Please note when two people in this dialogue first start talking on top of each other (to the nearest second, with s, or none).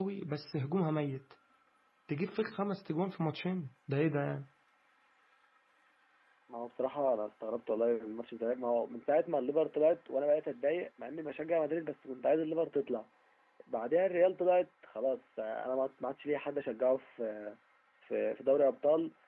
none